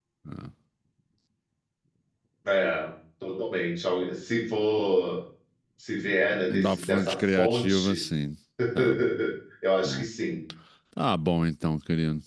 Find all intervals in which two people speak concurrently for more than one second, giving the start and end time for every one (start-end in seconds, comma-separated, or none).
6.5-8.0